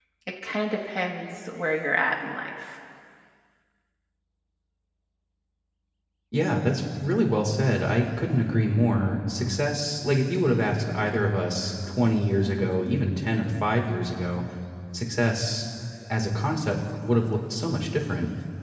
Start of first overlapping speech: none

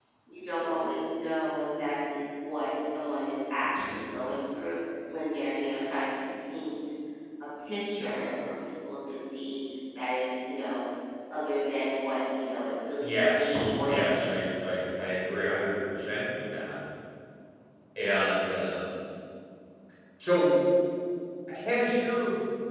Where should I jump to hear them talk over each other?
13.0 s

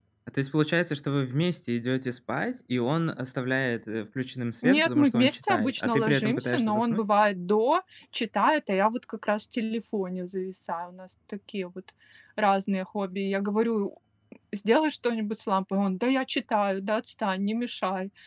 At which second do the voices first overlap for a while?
4.6 s

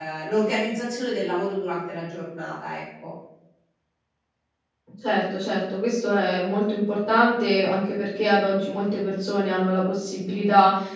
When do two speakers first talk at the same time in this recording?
none

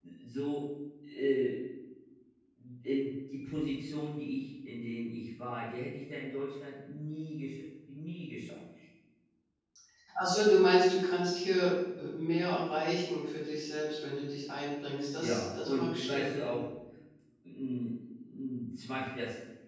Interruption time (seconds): 15.2 s

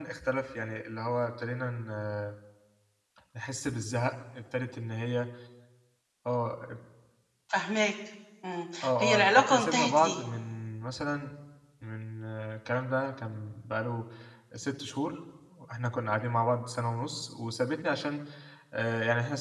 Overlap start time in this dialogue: 8.8 s

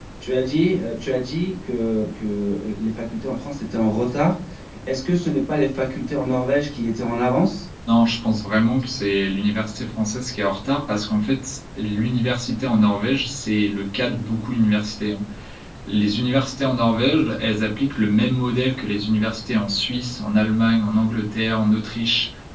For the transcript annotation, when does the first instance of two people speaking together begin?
none

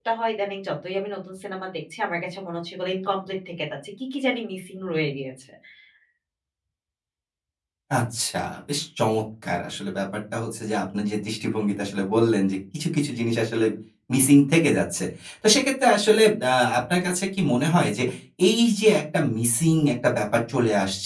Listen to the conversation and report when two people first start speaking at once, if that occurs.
none

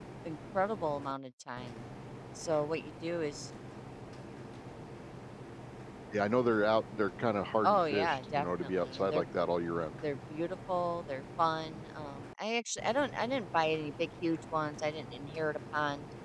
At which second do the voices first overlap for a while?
7.6 s

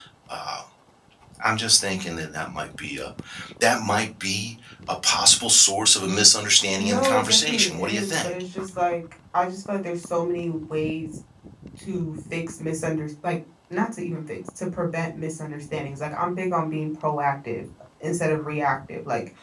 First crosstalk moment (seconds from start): 6.8 s

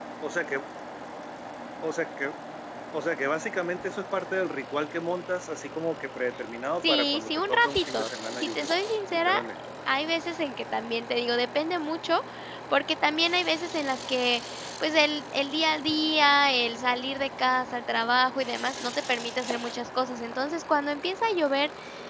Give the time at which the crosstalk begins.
6.8 s

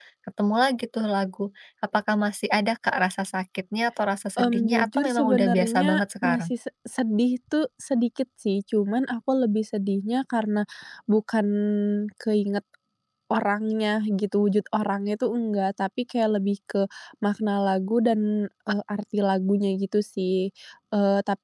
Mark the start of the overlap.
4.4 s

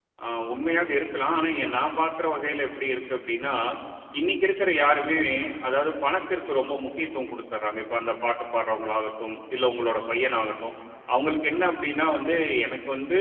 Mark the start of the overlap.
none

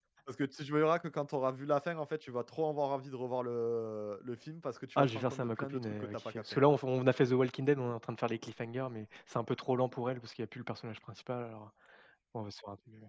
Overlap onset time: 5.0 s

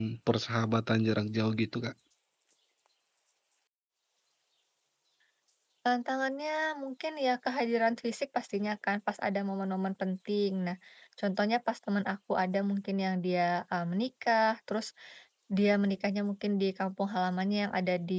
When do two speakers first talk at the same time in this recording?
none

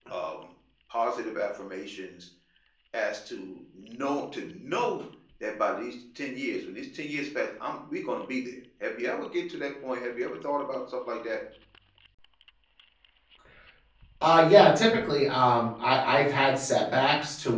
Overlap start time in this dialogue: none

